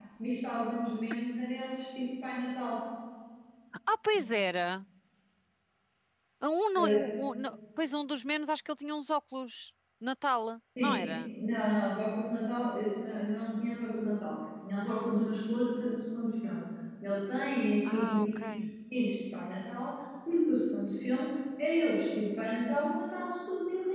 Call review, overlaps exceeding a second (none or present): none